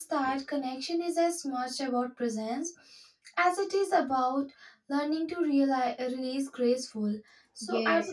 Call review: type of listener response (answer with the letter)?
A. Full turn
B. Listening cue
A